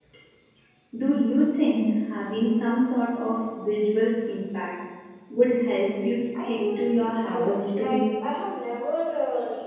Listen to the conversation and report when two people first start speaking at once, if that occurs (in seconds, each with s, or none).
6.3 s